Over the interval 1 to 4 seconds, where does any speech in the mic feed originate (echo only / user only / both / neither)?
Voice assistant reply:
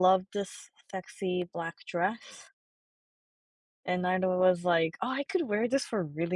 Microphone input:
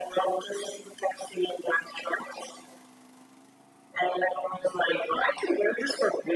echo only